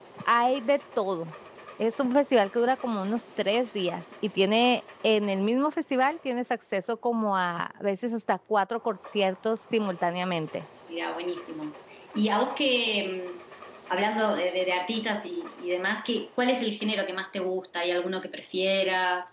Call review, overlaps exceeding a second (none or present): none